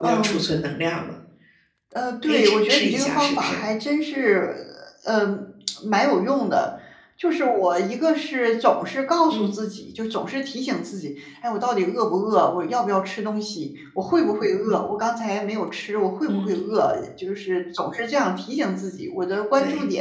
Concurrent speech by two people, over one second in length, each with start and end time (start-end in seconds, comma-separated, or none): 2.2-3.6